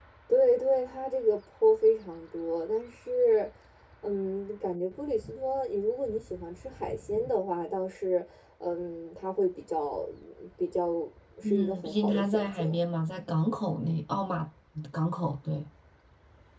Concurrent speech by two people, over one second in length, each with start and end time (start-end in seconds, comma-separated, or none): 11.4-12.8